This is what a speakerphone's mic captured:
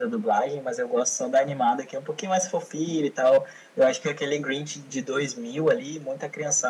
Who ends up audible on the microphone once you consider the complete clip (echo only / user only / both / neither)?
echo only